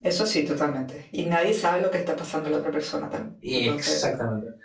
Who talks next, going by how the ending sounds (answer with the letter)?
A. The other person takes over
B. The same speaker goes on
A